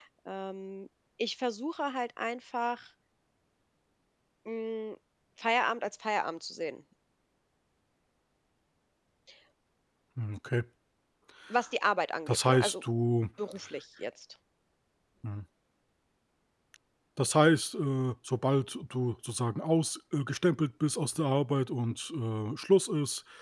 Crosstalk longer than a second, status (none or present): none